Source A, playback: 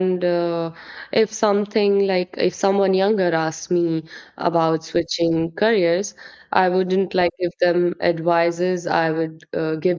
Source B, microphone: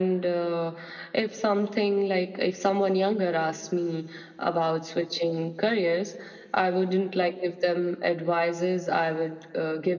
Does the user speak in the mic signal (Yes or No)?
No